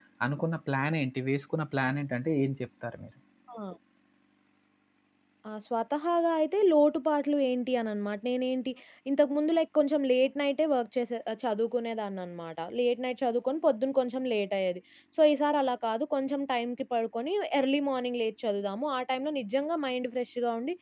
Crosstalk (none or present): none